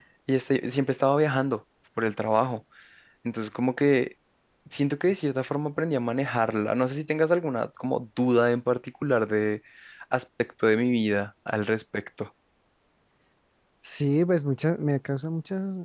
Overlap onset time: none

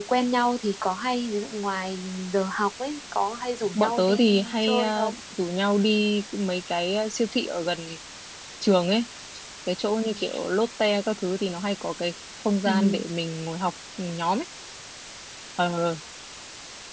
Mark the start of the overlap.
3.8 s

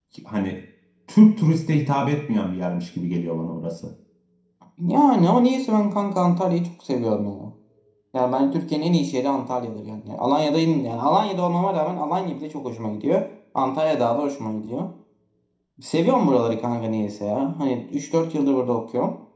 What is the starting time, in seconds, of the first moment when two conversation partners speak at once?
none

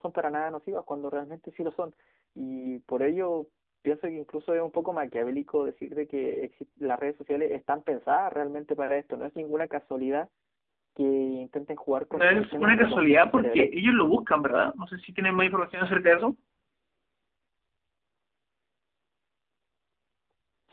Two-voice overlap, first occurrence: 12.1 s

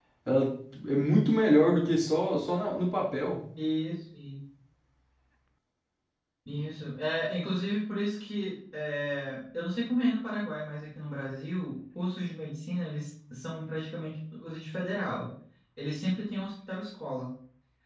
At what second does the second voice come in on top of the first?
none

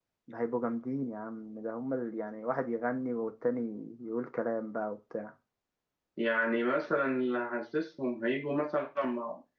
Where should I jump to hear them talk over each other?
none

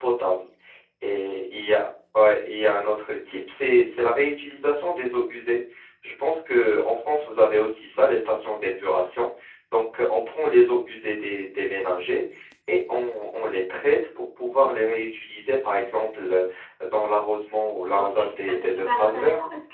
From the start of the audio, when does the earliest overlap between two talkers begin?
17.9 s

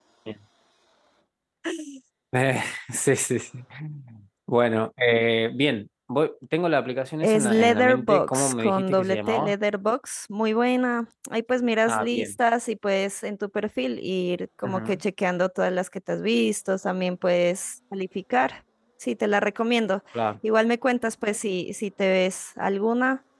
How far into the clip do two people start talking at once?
7.2 s

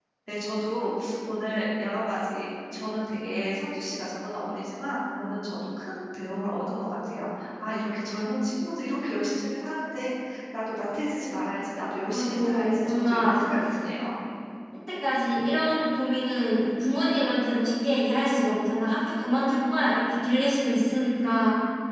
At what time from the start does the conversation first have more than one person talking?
12.1 s

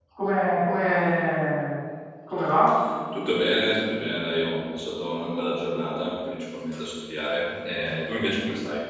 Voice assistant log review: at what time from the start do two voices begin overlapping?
none

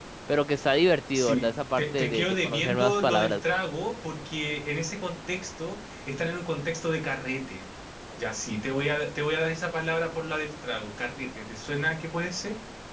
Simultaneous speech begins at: 1.1 s

